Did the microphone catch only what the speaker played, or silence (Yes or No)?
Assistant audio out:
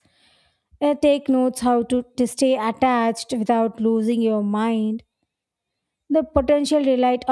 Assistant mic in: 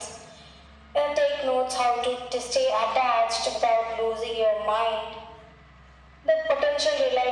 Yes